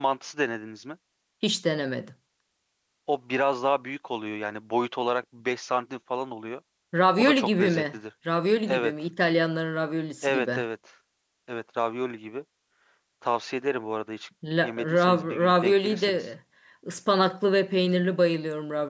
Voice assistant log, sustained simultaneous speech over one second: present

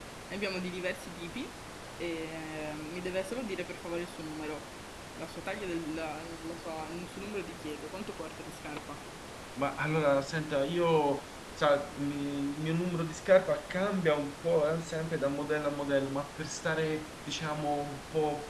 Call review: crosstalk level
none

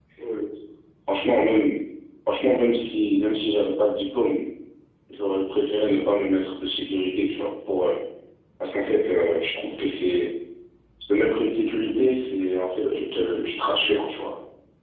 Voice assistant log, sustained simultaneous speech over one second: present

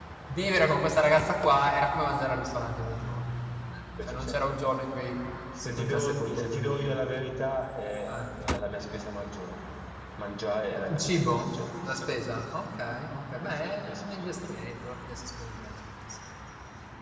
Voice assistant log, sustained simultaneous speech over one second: present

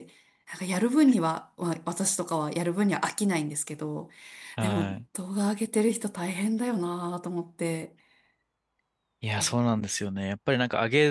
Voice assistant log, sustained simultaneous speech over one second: none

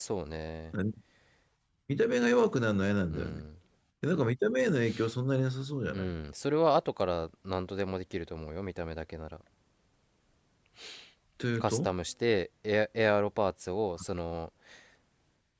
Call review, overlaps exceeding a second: none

